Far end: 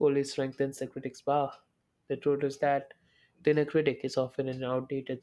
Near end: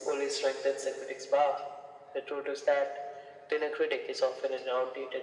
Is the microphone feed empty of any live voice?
Yes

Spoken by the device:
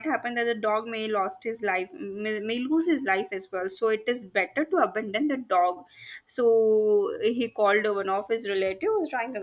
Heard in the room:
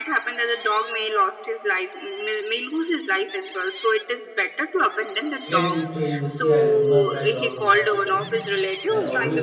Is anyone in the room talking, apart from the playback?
Yes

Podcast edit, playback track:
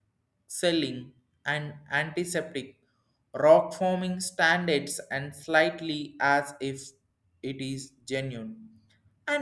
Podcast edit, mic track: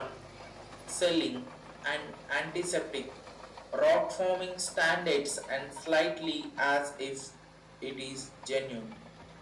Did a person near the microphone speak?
No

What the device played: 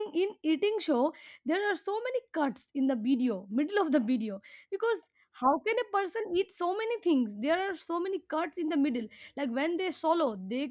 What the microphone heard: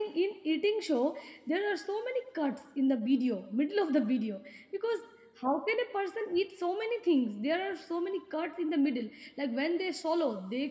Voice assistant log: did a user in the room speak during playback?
No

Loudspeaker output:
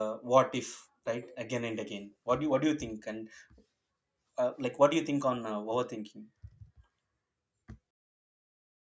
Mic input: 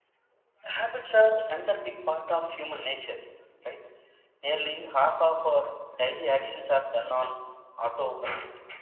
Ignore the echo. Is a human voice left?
Yes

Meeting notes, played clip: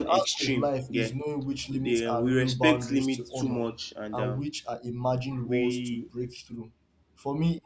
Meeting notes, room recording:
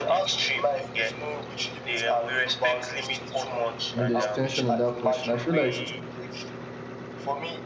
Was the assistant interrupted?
Yes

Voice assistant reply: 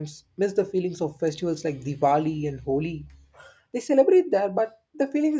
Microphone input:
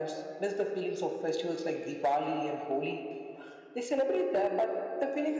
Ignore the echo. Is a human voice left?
No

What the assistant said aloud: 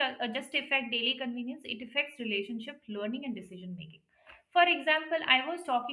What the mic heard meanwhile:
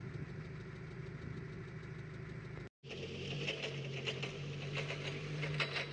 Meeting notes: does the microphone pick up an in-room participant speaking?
No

